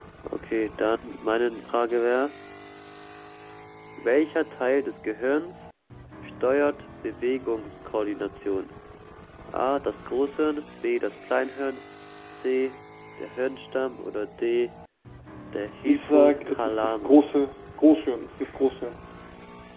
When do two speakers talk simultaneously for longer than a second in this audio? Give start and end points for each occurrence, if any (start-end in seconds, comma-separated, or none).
15.8-17.3